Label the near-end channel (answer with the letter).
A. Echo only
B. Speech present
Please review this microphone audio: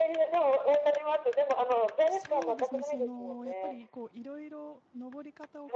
B